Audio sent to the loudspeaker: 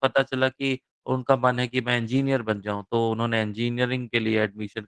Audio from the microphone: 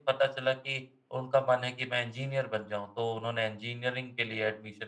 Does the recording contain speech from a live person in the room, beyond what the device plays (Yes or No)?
No